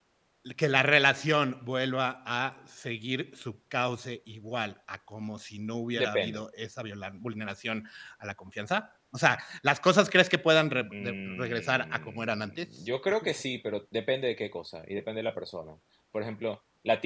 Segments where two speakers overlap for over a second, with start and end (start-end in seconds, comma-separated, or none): 11.0-12.7